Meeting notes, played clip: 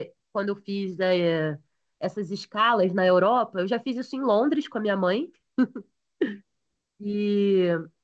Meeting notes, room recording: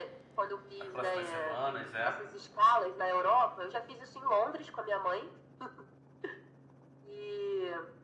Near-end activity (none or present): present